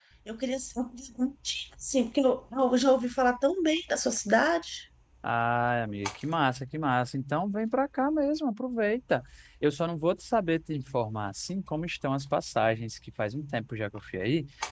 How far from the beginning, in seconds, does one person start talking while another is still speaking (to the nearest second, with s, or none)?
none